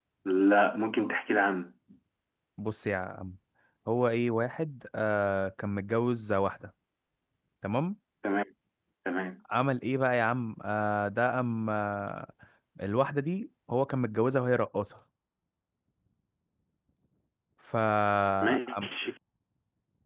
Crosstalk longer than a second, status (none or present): none